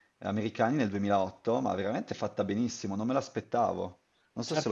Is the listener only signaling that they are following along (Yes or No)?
No